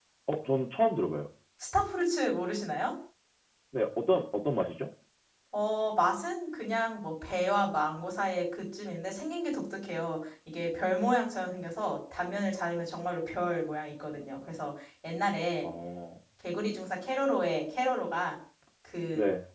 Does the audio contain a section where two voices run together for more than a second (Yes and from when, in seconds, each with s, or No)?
No